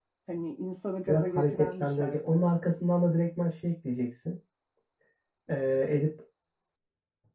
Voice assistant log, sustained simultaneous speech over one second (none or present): present